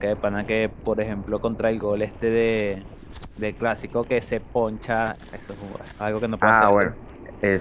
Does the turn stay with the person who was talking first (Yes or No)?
No